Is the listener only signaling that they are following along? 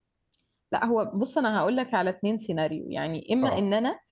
Yes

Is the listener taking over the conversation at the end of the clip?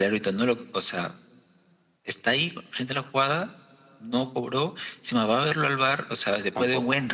No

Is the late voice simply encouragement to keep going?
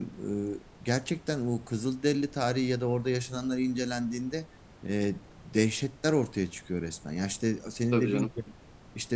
Yes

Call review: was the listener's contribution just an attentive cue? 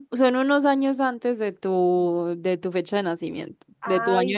No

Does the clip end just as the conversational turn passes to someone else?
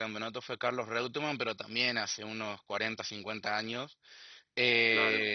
No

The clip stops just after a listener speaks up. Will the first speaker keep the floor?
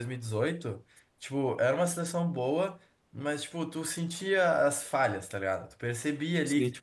Yes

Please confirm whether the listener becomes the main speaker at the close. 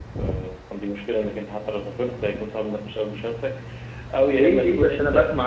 Yes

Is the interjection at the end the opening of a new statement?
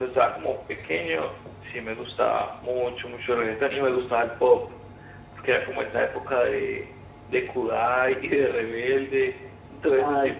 No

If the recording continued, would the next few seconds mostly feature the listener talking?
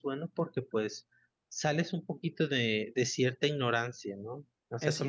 No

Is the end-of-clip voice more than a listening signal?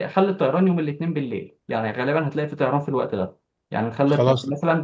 No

